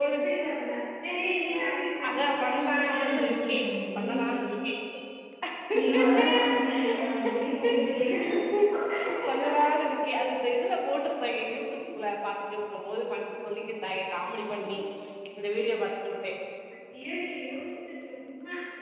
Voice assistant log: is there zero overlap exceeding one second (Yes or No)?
No